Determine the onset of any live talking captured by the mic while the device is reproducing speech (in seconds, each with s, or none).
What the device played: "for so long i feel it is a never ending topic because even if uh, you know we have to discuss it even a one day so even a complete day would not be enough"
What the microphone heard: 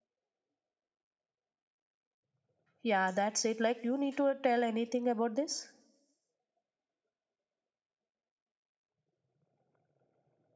2.8 s